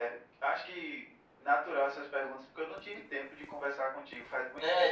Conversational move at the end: taking over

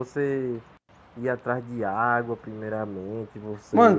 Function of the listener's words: taking over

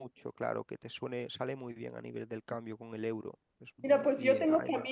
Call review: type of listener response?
taking over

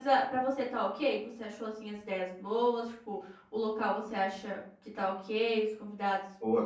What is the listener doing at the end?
taking over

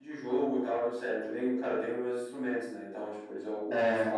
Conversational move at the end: listening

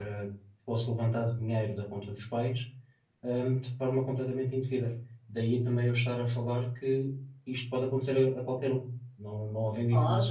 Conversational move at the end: taking over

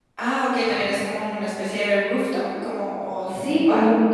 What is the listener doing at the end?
taking over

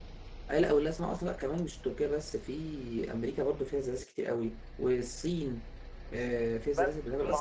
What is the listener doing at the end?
taking over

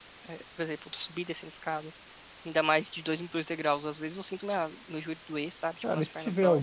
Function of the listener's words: taking over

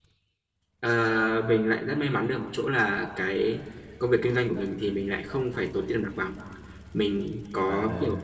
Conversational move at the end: listening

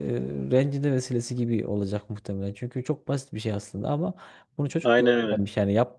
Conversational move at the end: listening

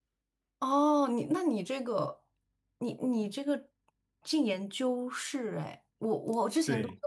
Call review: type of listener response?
listening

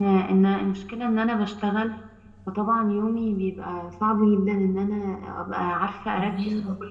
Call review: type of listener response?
listening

